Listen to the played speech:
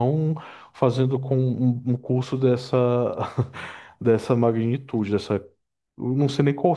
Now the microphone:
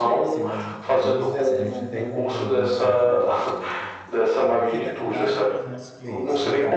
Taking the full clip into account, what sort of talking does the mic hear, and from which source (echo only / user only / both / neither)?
both